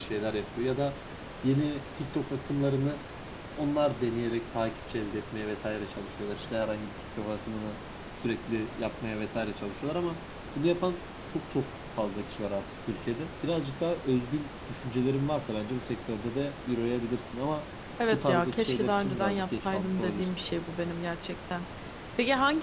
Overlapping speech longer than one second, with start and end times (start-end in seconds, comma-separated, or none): 18.1-20.4